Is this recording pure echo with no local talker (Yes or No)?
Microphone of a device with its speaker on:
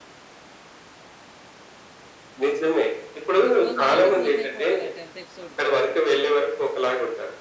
No